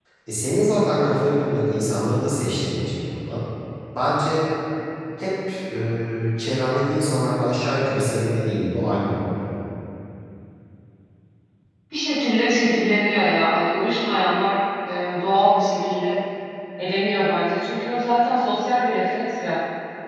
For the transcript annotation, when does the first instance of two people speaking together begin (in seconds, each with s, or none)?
none